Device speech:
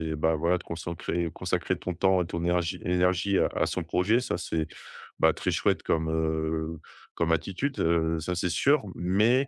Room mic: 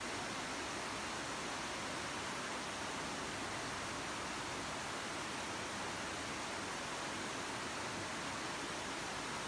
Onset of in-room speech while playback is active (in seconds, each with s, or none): none